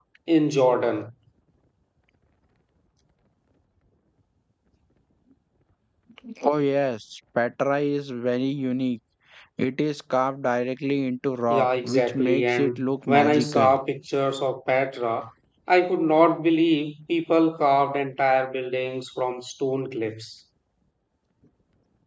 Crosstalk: present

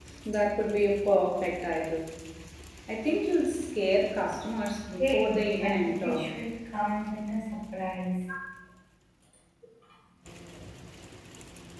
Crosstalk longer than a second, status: present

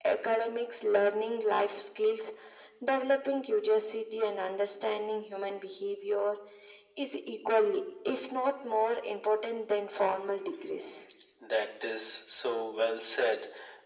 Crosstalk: none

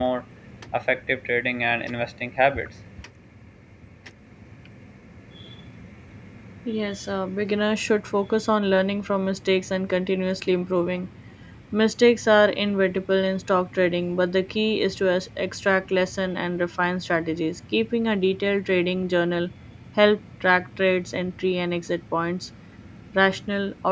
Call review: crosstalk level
none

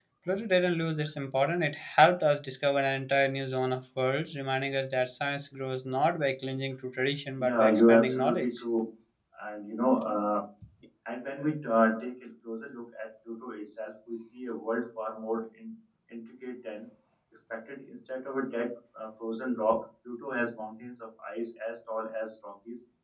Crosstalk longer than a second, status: present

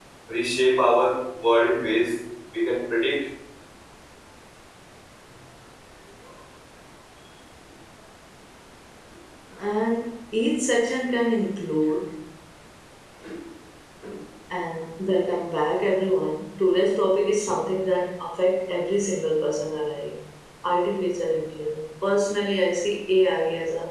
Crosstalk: none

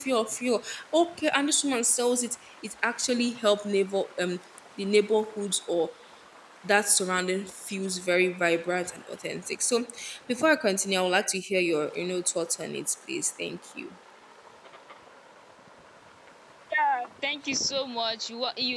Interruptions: none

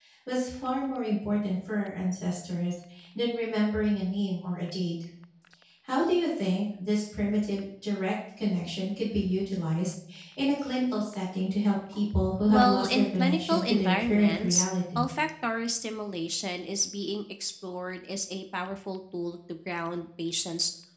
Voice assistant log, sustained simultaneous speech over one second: present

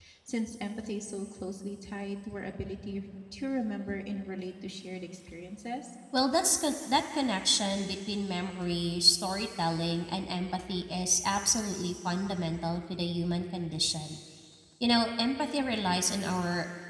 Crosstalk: none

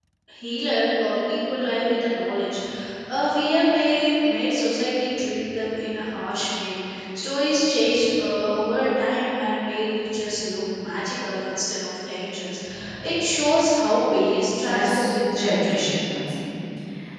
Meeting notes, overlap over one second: present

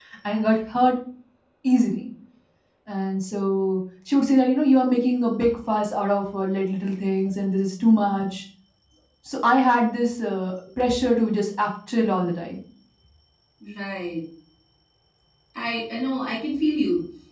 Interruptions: none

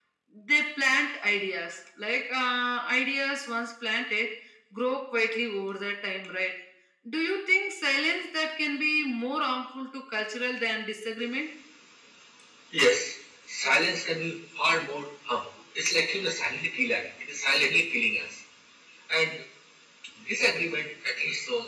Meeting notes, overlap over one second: none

